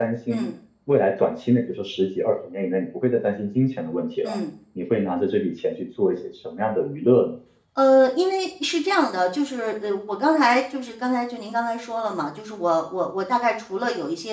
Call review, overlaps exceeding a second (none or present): none